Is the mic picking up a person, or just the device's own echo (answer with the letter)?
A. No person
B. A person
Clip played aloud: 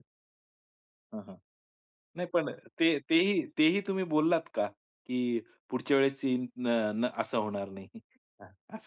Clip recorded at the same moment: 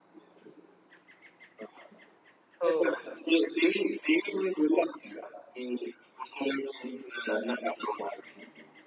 B